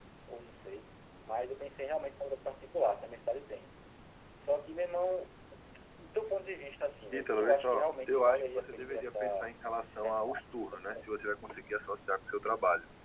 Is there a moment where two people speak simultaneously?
Yes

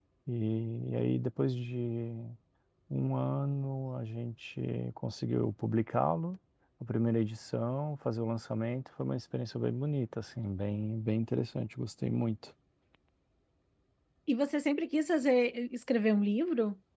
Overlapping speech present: No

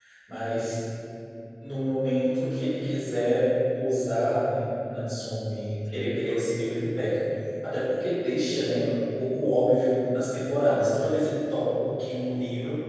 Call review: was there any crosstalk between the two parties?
No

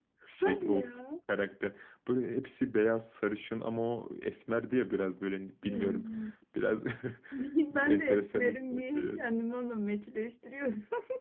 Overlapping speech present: Yes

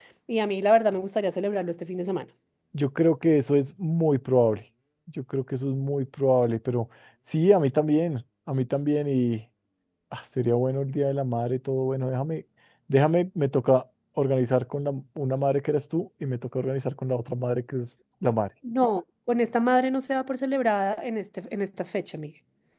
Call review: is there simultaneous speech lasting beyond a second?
No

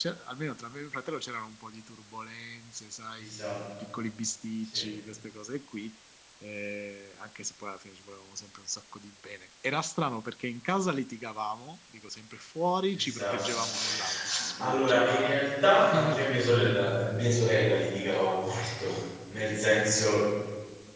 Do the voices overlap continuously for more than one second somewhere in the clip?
Yes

